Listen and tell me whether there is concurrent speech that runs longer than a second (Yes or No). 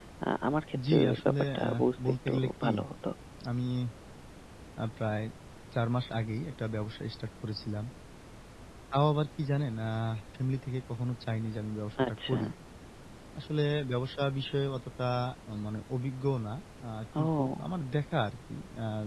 Yes